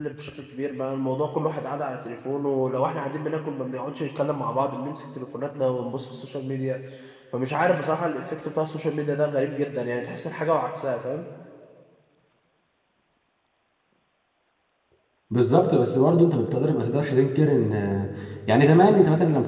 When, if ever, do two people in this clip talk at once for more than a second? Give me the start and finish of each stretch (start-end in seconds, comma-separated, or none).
none